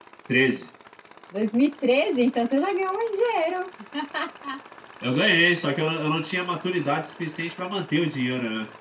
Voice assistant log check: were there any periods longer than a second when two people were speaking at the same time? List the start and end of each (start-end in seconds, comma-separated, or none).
none